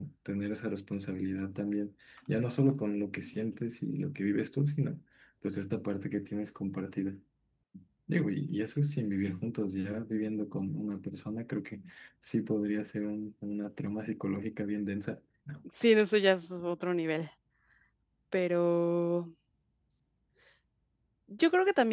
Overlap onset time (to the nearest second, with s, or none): none